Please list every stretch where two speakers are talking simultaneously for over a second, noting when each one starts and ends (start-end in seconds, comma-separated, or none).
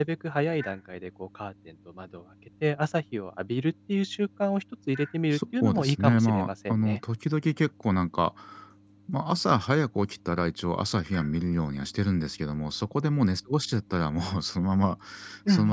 5.3-7.0